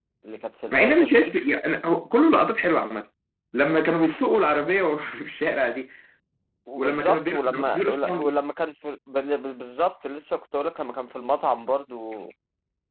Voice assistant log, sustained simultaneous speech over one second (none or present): present